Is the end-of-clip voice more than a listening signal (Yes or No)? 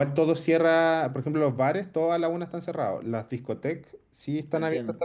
No